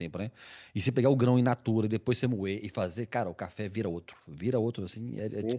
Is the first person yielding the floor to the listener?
Yes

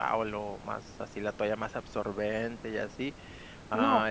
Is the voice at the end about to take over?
No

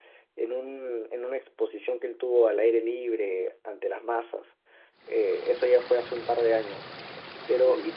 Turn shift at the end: No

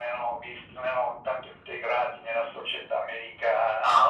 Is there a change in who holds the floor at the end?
Yes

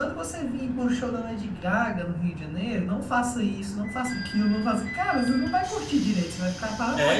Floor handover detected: Yes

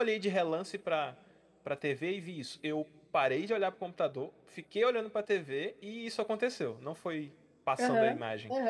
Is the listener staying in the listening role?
No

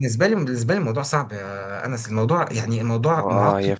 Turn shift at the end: Yes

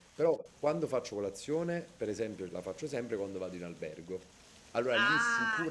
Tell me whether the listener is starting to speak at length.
Yes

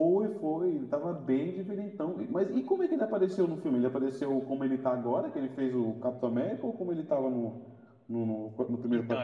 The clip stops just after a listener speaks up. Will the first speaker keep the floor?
No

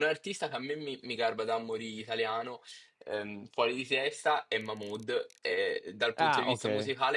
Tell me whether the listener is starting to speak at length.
No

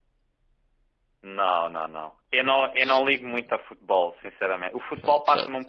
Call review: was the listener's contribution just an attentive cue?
Yes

